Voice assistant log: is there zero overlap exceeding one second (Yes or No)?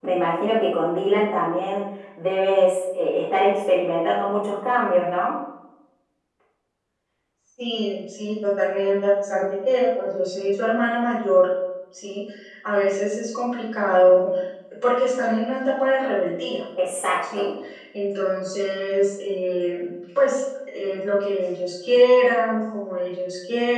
Yes